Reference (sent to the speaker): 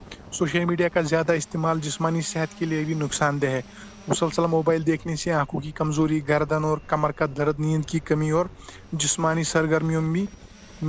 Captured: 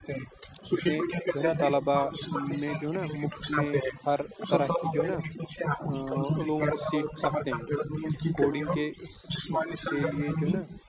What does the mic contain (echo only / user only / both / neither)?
both